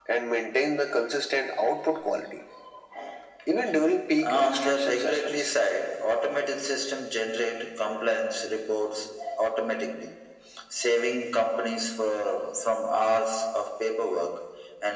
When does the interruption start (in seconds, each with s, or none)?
4.2 s